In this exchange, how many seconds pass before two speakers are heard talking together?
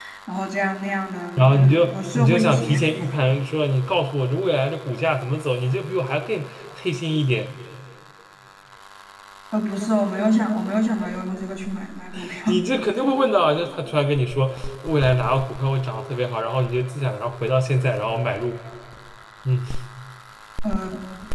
1.4 s

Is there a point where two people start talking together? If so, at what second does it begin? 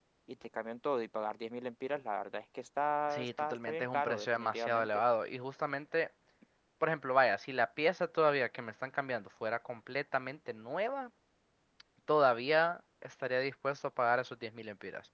3.1 s

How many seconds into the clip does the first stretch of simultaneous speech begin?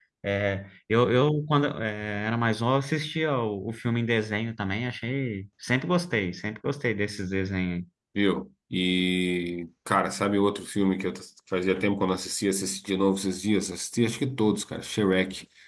none

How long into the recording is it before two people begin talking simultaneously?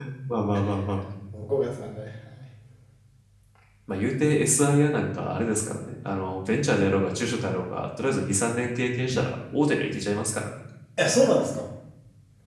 none

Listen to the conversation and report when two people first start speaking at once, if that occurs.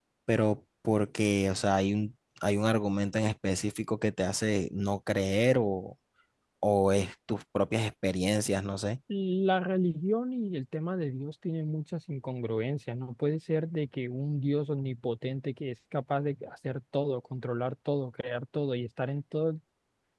none

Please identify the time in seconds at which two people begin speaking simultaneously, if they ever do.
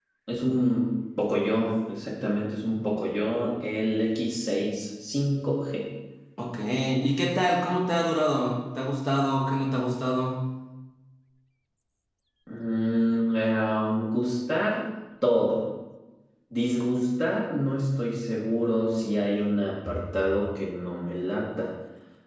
none

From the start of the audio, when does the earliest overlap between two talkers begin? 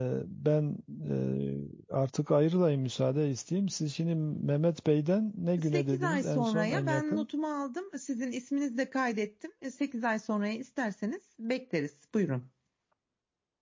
5.6 s

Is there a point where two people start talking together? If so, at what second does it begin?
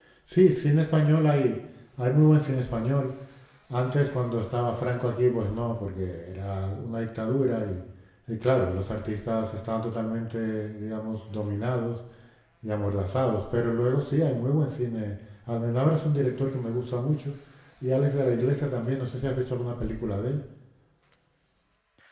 none

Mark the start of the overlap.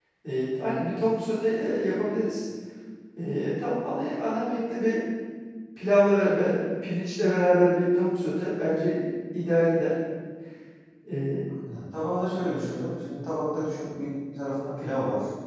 none

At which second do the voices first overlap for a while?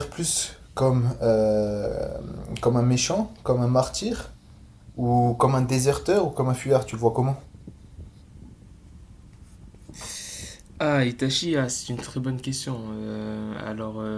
none

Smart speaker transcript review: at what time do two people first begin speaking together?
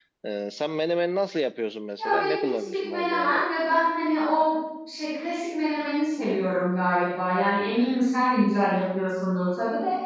2.0 s

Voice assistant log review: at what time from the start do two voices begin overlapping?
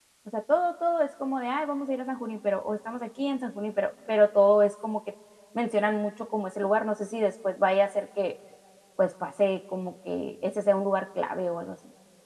none

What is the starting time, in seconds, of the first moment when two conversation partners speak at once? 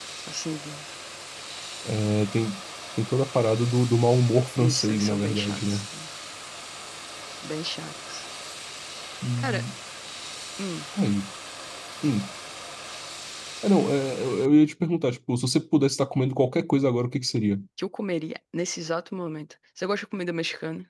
4.6 s

